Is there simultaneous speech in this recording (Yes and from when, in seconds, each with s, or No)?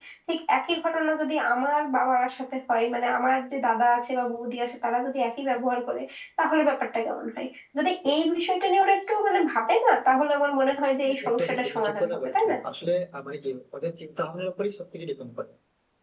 Yes, from 11.0 s